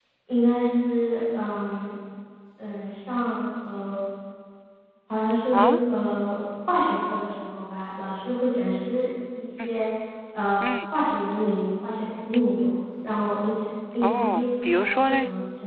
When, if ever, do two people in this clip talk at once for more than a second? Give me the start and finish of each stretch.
none

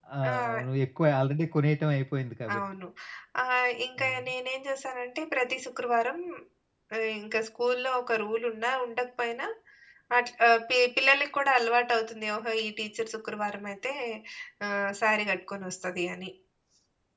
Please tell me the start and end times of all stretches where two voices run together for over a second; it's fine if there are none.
none

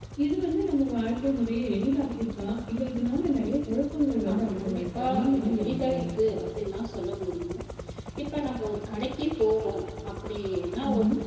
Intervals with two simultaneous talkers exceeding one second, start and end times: 4.3-6.0

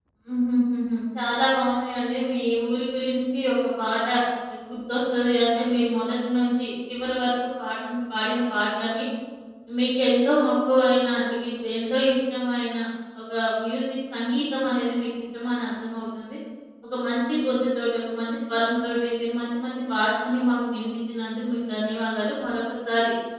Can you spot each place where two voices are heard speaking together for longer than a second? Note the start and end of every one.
none

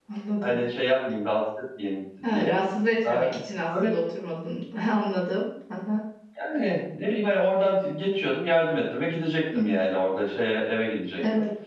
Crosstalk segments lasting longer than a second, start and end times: none

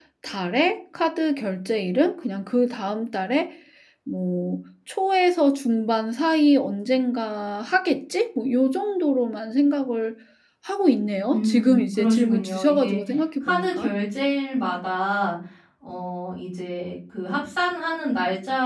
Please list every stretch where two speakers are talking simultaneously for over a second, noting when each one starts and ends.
11.3-13.0

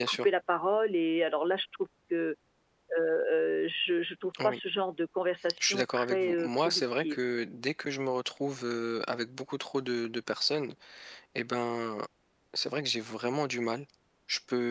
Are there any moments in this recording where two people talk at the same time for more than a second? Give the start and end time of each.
5.6-7.2

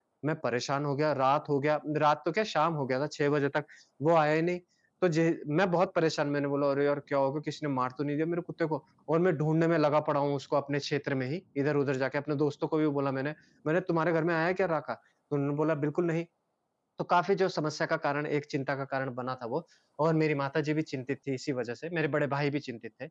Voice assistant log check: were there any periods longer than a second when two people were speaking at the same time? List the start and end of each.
none

